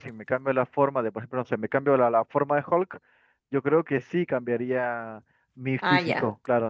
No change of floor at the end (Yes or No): No